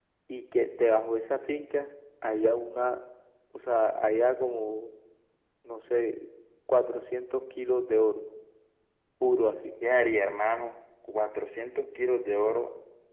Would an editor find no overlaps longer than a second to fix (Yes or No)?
Yes